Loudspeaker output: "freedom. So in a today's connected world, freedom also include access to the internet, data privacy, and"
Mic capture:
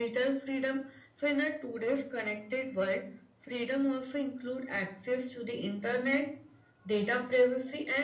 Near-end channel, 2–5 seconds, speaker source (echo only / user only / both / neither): echo only